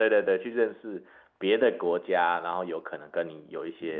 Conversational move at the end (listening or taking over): taking over